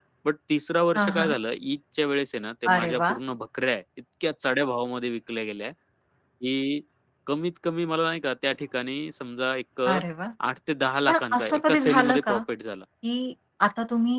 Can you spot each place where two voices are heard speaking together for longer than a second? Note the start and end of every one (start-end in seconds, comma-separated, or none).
11.1-12.3